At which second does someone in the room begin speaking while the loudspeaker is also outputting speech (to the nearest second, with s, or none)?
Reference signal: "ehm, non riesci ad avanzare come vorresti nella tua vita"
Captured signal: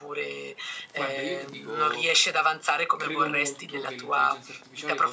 1 s